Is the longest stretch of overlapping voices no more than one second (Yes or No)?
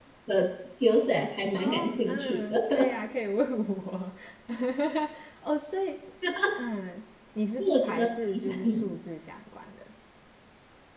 No